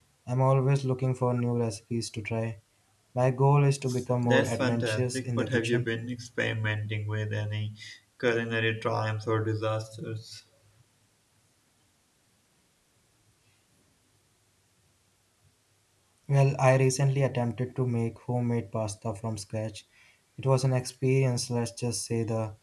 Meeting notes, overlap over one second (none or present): present